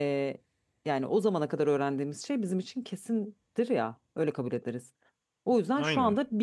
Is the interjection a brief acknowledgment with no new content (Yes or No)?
Yes